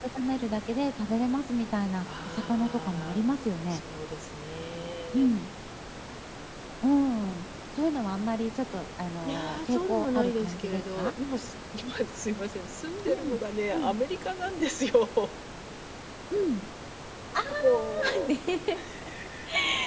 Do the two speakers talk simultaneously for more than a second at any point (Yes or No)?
Yes